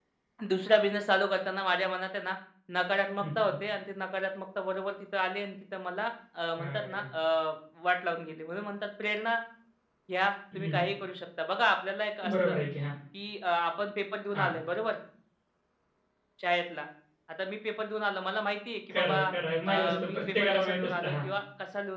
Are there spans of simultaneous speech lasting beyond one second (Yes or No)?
Yes